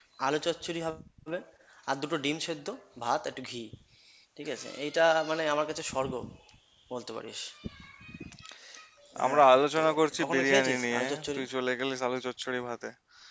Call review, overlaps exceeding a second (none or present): present